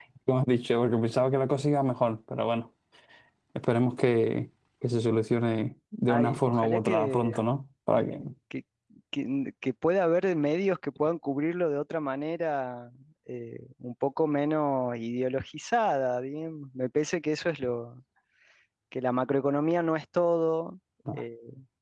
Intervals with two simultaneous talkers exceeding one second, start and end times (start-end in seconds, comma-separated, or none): 6.1-7.5